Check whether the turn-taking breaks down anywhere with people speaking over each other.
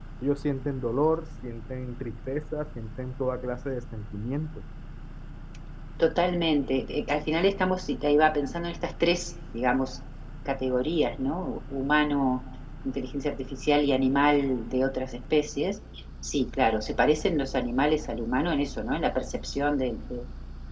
No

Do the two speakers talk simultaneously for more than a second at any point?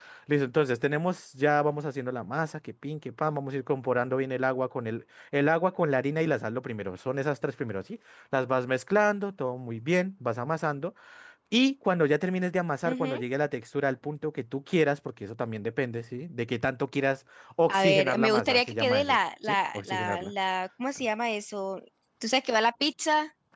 Yes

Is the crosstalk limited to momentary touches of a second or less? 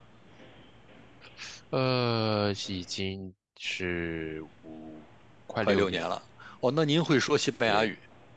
Yes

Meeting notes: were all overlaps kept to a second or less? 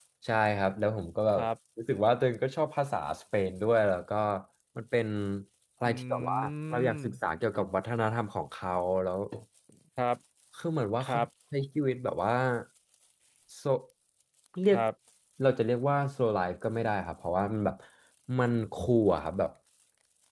No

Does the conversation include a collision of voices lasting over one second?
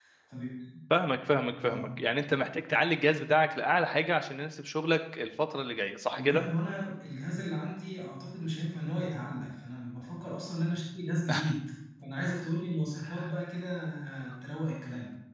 No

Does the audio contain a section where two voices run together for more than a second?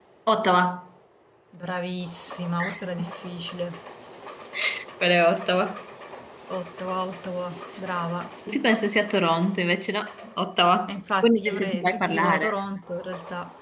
Yes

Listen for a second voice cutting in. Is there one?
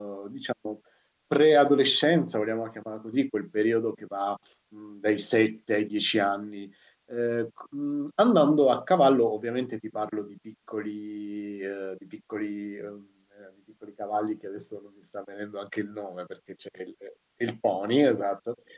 No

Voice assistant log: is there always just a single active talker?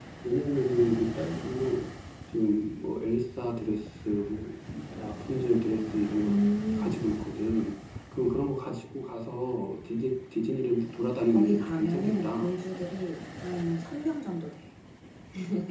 No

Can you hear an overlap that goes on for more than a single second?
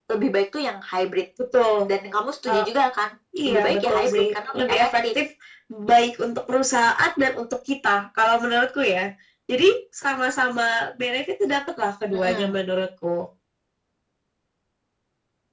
Yes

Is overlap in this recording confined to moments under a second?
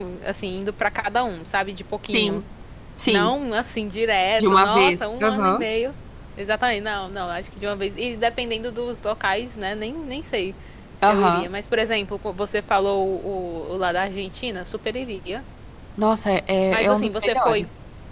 No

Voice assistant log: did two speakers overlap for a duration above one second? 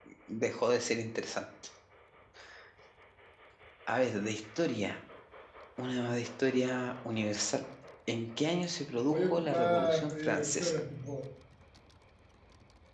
Yes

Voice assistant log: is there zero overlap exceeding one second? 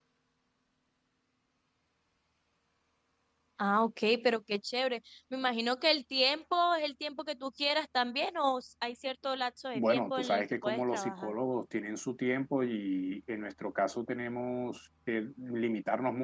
No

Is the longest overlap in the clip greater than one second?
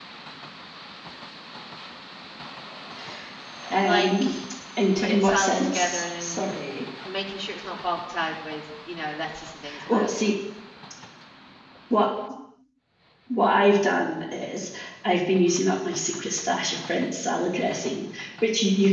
Yes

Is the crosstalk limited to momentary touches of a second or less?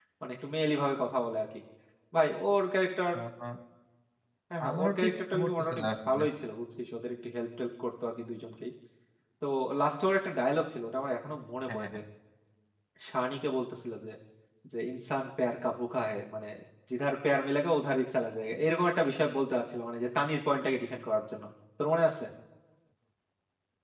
No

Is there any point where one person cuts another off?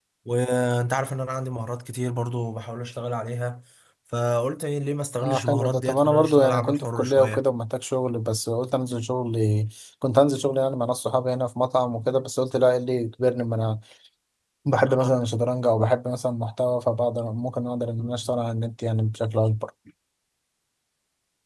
Yes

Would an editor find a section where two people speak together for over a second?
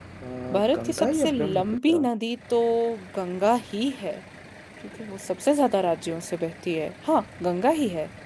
Yes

